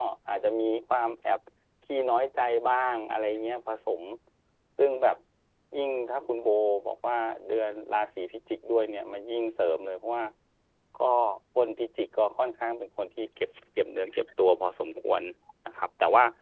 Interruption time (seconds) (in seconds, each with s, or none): none